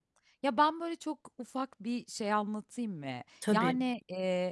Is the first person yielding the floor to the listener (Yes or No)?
No